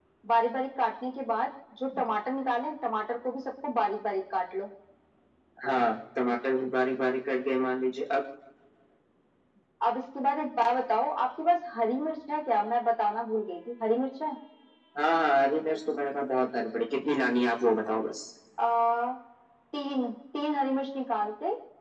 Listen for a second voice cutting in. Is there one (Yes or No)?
No